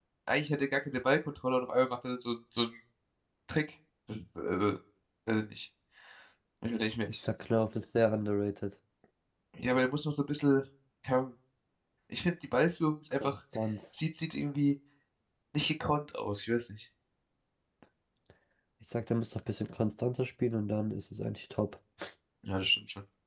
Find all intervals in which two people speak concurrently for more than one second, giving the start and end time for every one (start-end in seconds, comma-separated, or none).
none